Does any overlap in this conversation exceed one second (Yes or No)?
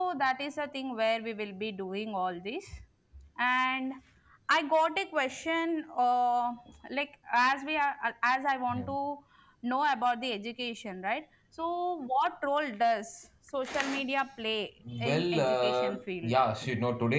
Yes